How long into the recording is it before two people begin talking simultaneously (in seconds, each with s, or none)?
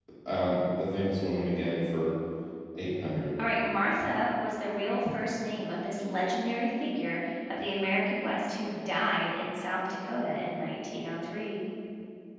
none